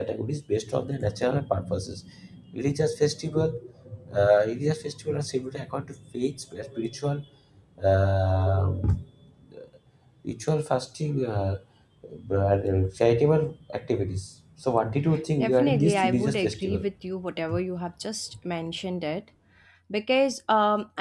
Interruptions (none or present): present